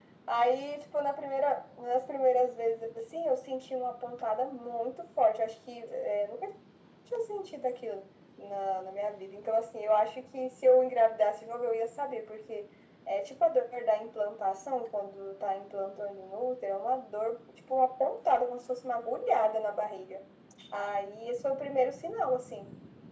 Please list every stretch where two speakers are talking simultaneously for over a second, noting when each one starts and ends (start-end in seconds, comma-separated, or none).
none